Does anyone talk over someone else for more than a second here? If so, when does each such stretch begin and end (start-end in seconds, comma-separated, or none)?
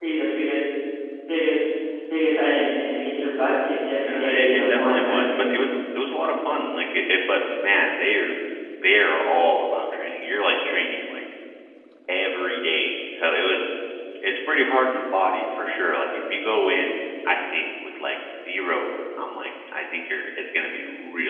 4.1-5.5